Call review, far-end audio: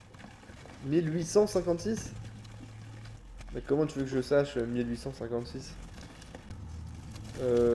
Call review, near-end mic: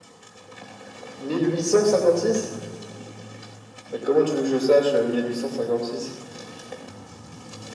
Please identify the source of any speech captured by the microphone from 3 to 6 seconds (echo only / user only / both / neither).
echo only